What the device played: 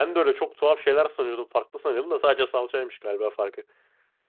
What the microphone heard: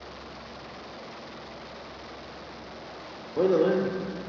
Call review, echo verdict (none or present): none